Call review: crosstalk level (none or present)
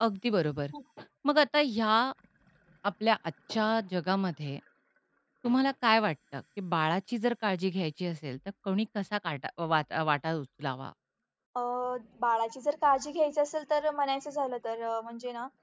none